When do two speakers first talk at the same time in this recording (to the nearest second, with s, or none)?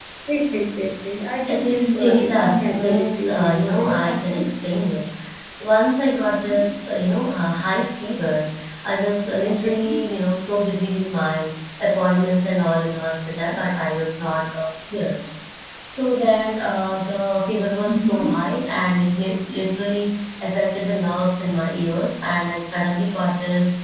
1 s